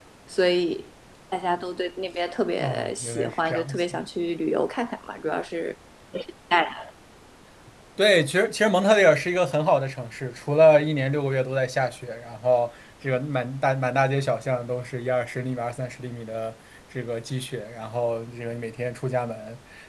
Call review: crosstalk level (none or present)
present